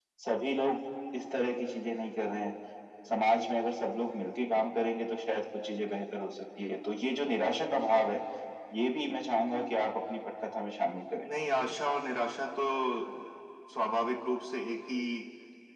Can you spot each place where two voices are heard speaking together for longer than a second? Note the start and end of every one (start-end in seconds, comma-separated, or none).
none